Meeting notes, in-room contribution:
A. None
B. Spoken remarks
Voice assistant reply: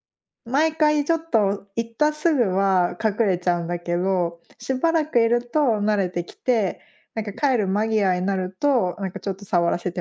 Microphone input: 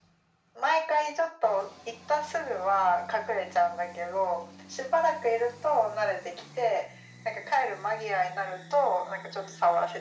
A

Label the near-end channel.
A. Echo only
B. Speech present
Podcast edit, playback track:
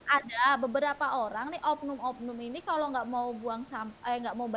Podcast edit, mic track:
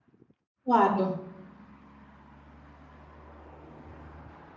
B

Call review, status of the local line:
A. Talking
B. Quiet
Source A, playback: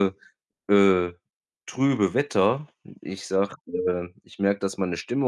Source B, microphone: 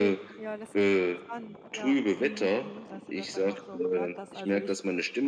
A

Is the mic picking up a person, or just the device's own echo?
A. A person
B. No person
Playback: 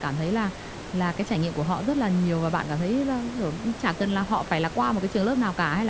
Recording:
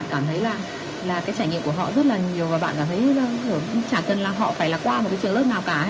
B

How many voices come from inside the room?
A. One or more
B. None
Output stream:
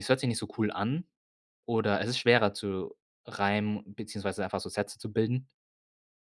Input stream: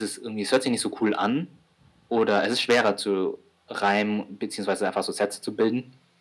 B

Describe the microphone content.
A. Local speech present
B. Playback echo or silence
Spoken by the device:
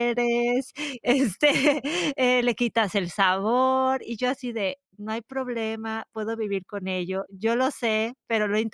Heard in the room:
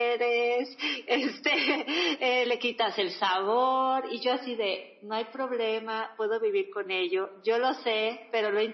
B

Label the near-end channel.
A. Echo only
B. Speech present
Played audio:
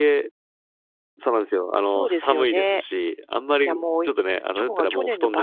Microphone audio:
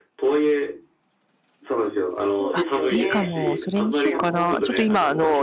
B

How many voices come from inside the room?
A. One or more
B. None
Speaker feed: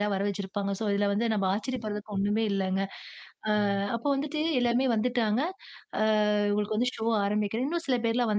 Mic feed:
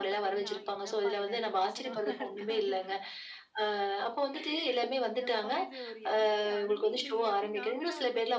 A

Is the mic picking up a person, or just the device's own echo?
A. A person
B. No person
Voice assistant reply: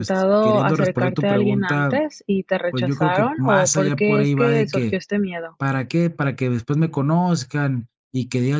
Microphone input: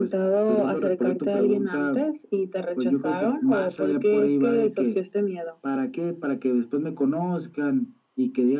B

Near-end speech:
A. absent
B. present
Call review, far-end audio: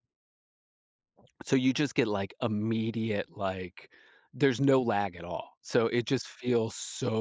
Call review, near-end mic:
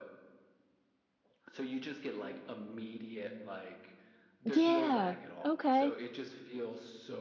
B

